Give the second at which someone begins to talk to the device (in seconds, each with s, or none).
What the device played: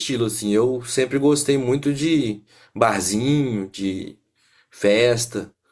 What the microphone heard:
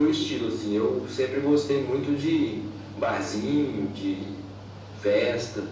none